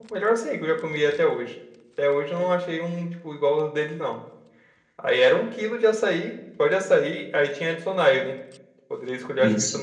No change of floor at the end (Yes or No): Yes